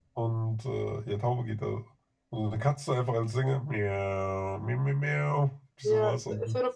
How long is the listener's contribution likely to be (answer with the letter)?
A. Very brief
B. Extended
B